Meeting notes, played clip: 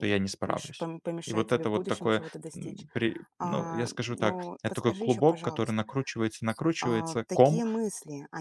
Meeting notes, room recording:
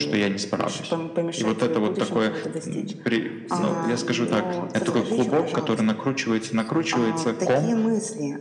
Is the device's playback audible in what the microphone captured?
Yes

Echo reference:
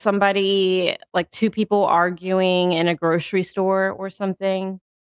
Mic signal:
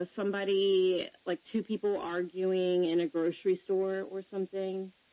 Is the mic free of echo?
No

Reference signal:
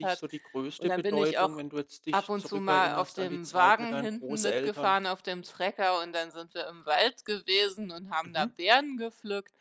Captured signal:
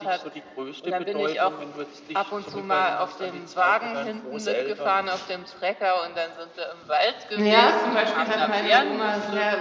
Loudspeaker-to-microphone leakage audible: Yes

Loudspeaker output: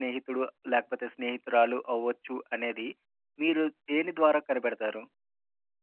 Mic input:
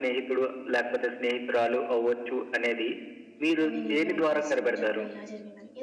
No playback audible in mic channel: No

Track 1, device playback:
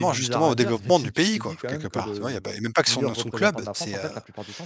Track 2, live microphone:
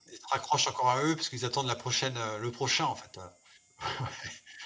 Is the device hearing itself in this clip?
No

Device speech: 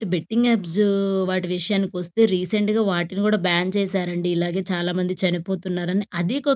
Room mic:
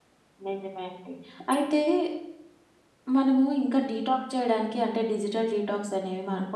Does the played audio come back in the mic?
No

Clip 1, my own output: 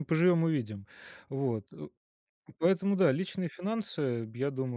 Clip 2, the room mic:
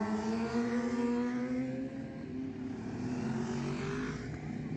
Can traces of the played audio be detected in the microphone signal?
No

